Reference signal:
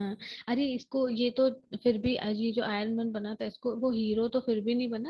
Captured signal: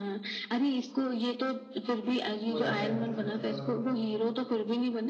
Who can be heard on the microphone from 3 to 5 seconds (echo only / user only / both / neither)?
both